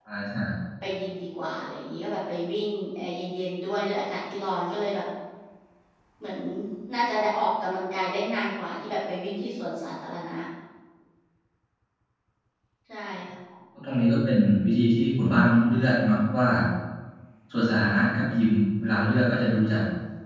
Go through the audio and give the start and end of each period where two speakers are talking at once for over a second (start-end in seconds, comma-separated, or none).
none